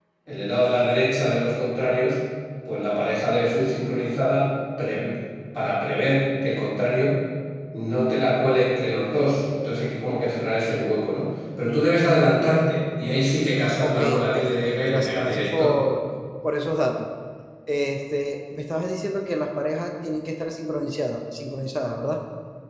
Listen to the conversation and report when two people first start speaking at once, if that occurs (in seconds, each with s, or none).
13.8 s